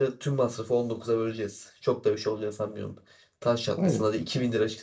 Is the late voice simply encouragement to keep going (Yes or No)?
Yes